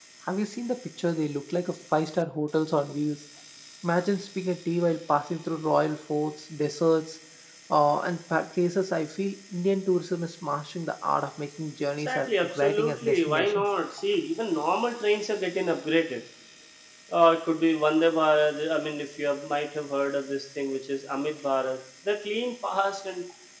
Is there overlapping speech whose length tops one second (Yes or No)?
Yes